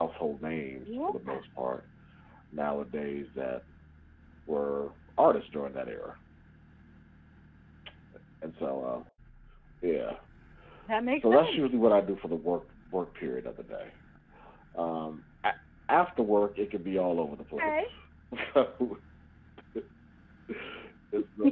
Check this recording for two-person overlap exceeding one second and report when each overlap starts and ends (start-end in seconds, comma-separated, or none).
none